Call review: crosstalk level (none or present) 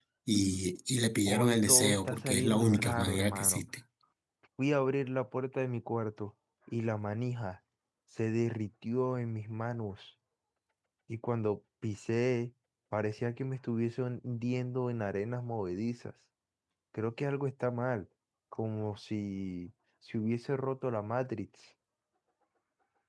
present